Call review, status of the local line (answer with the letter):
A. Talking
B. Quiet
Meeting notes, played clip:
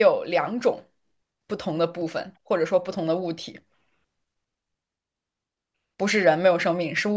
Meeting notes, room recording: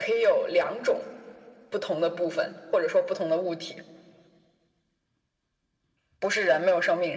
B